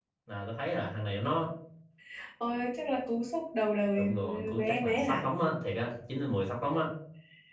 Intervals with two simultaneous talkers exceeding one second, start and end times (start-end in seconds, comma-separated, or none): 4.0-5.3